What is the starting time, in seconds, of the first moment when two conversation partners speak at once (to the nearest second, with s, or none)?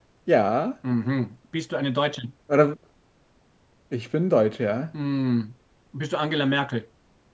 none